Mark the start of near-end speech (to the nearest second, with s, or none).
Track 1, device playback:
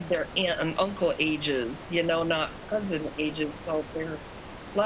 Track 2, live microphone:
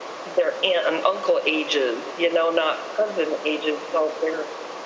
none